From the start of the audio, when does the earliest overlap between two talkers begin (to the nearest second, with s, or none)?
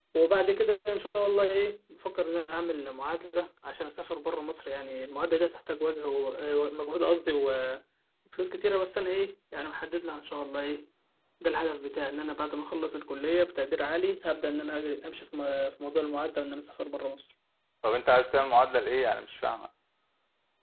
none